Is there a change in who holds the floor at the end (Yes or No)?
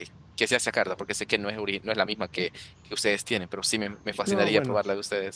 Yes